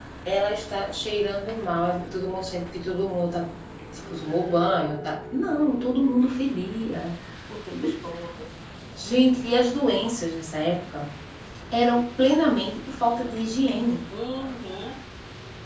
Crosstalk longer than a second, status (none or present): none